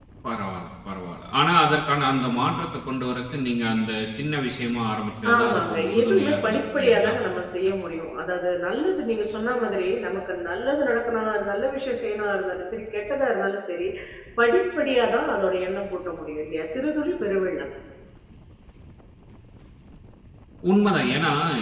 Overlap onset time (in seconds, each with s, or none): 5.2 s